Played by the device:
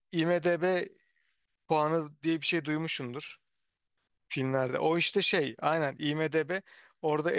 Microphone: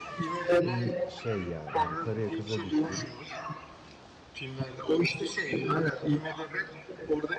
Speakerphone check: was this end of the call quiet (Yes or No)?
No